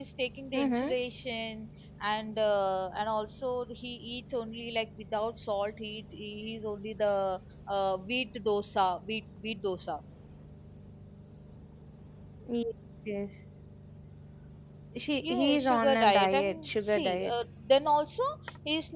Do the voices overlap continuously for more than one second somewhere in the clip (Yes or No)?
Yes